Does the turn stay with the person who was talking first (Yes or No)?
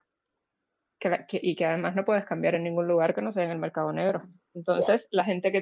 Yes